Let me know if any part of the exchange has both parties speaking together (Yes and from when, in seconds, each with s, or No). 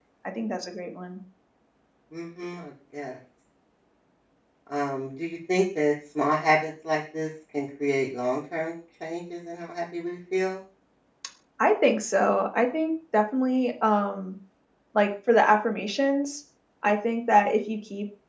No